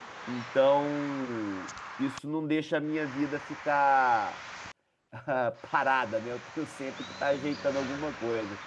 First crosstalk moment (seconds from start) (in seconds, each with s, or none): none